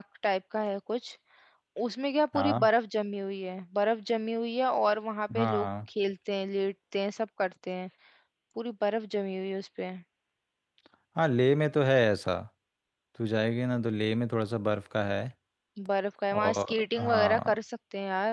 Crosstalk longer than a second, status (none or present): present